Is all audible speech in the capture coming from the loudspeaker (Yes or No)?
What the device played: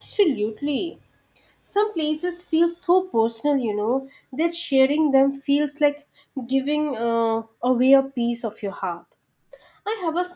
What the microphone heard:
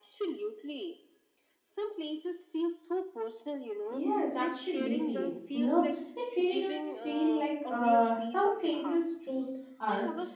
No